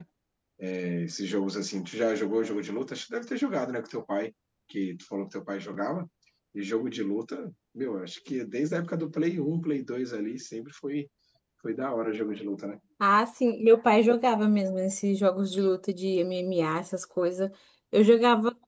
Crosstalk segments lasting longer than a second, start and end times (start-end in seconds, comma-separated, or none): none